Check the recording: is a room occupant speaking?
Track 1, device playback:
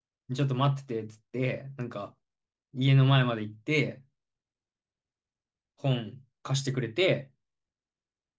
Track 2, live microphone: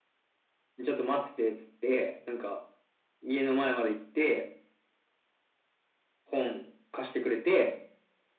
No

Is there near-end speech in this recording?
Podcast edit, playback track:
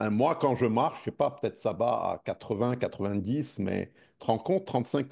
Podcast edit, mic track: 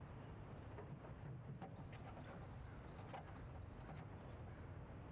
No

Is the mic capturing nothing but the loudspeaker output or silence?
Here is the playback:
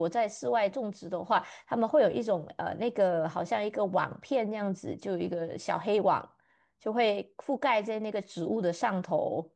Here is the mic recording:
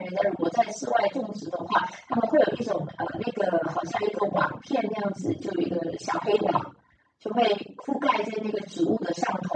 Yes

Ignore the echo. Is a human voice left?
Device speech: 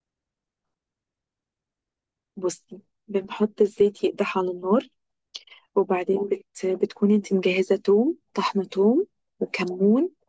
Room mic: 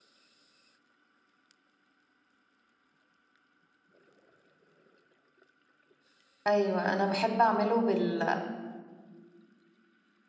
Yes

